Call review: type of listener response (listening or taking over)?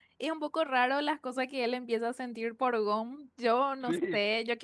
listening